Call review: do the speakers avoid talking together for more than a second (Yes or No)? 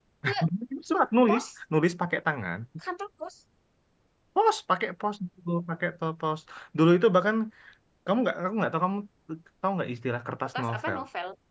Yes